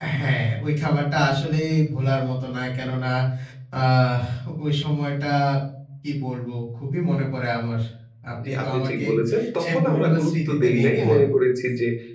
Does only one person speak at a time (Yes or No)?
No